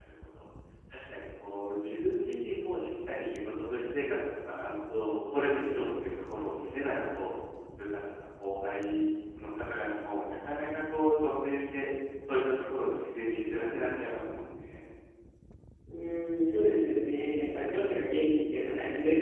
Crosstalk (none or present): none